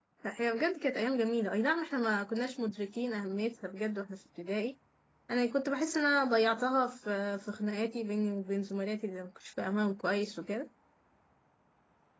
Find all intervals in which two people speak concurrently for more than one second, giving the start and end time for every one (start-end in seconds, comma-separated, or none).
none